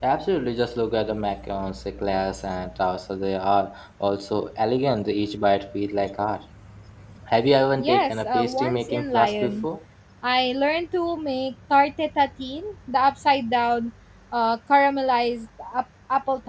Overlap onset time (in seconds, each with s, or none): 7.8 s